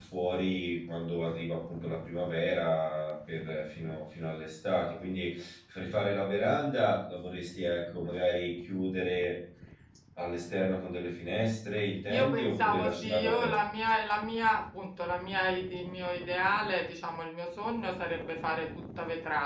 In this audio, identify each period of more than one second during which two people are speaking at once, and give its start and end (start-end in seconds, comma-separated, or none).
12.1-13.5